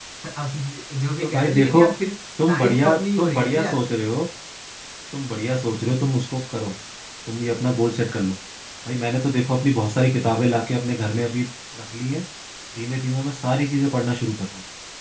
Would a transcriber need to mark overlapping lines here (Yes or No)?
Yes